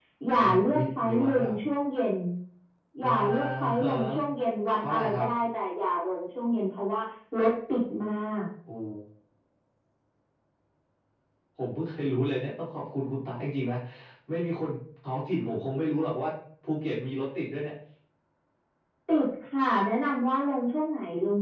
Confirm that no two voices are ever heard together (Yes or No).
No